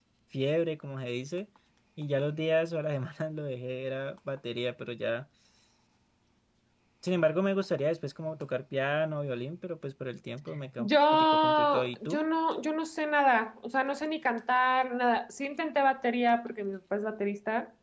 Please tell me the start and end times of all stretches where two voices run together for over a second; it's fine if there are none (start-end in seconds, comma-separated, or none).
10.8-12.2